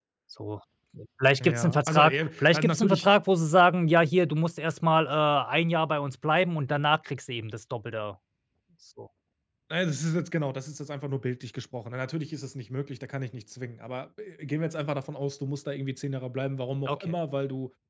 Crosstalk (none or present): present